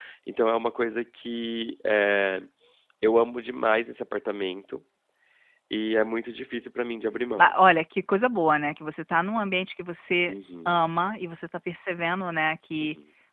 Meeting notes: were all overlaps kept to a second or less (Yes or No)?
Yes